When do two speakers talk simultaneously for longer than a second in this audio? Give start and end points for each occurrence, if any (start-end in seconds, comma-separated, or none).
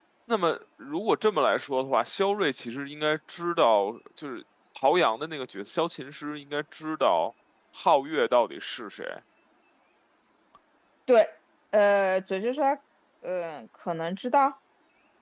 none